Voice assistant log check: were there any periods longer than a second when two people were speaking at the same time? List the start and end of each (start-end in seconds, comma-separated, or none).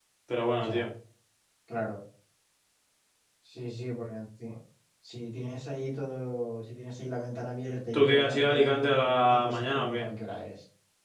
7.9-10.1